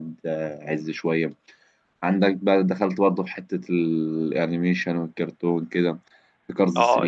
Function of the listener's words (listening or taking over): taking over